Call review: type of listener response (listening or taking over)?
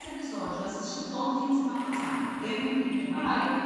taking over